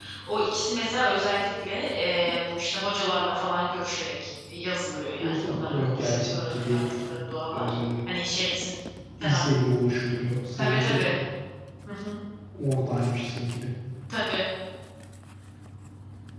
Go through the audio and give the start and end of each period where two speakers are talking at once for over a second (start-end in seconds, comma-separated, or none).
5.2-6.8